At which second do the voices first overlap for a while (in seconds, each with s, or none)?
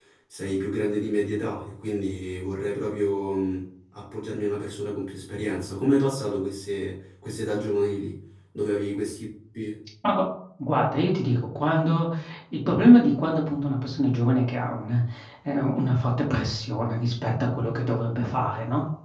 none